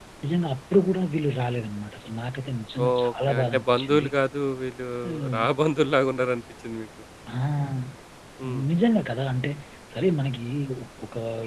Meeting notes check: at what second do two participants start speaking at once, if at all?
2.9 s

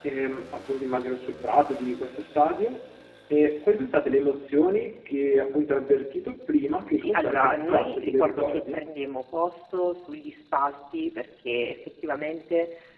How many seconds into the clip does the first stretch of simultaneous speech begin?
7.0 s

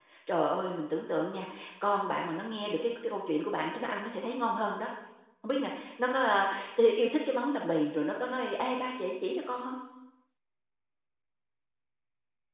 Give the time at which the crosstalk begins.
none

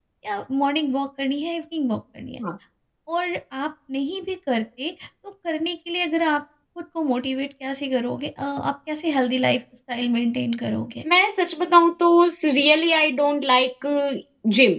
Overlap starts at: none

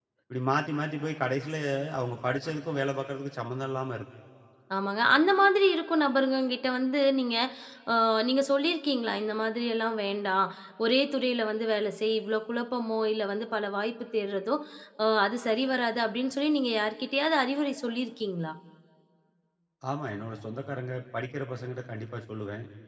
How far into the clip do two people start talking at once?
none

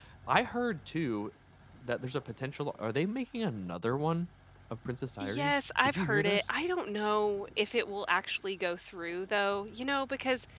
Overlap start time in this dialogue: 5.2 s

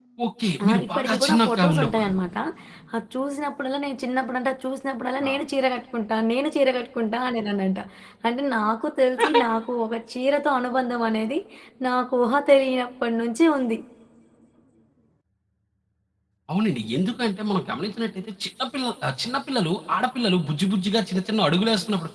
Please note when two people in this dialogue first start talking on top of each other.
0.7 s

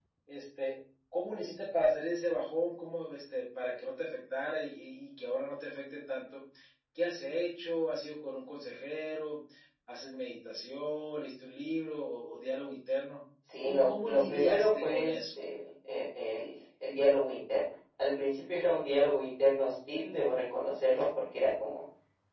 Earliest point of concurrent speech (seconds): 13.5 s

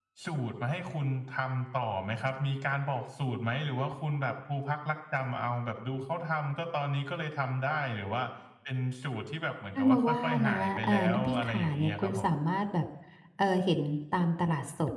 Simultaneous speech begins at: 9.8 s

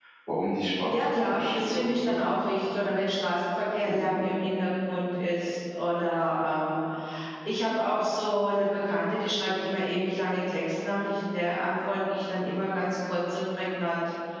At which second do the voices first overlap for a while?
0.9 s

